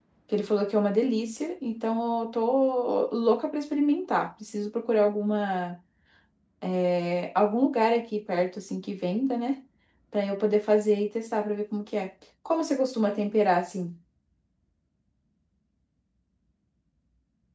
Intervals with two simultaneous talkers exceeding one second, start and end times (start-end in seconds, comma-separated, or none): none